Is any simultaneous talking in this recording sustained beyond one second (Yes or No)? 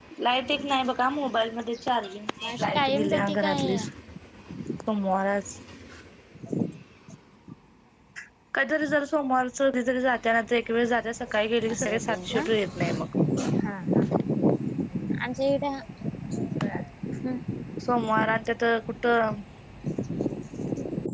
Yes